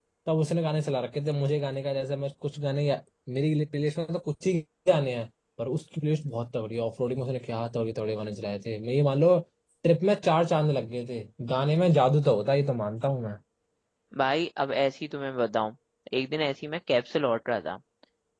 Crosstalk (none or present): none